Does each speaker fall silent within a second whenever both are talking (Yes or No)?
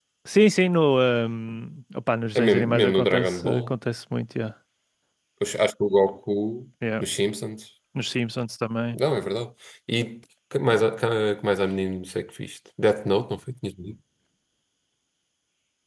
No